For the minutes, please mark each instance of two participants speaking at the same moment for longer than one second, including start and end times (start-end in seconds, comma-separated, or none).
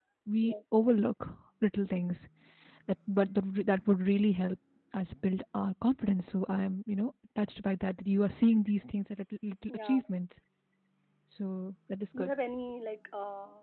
none